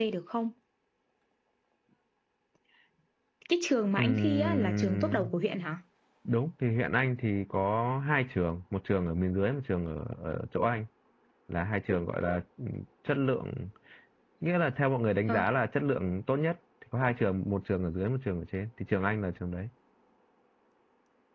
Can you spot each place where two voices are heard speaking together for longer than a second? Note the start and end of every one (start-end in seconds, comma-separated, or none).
4.0-5.3